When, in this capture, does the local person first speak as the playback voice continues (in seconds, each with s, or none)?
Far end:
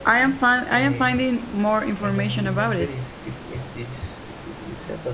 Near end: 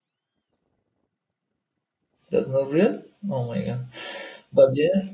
2.3 s